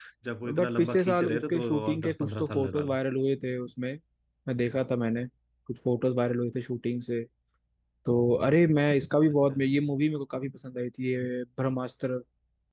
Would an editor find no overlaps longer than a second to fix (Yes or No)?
No